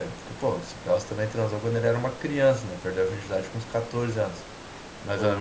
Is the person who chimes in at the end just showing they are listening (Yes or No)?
Yes